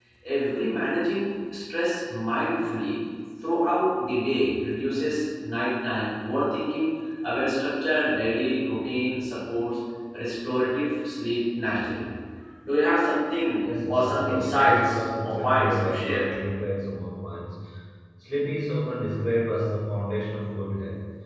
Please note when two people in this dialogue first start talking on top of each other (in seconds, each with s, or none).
13.6 s